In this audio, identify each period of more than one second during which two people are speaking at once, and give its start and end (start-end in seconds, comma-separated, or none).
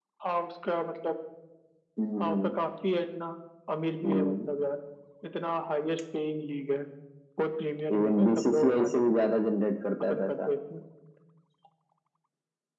8.0-9.3